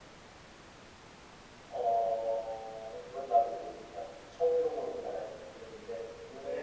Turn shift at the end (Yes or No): Yes